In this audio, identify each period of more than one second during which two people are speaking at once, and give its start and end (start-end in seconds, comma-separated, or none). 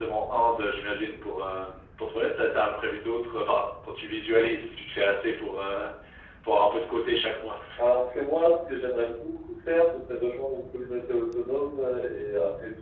none